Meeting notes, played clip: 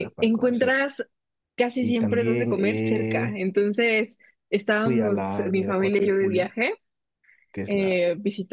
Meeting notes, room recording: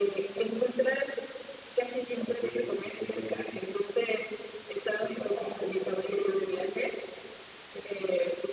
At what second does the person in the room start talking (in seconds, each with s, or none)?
none